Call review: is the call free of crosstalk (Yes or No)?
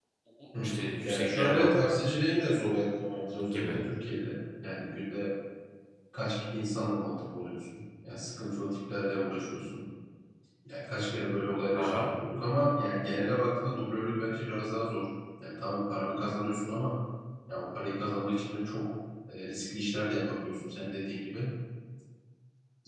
No